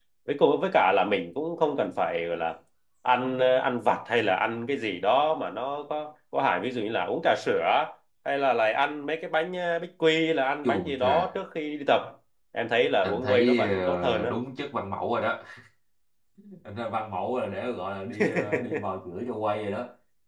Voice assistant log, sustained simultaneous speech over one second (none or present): present